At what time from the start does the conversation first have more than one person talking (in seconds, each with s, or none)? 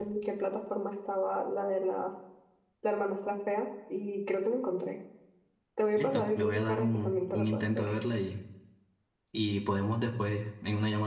6.0 s